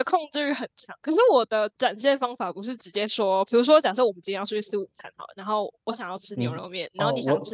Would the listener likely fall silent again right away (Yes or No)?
No